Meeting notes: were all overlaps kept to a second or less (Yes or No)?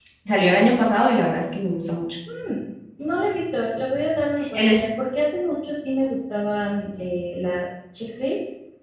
Yes